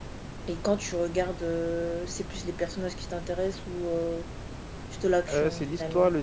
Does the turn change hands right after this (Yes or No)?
Yes